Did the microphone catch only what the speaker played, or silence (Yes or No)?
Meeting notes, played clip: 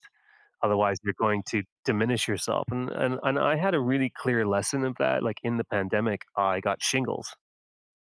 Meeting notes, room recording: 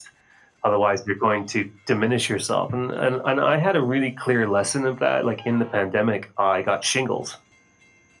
Yes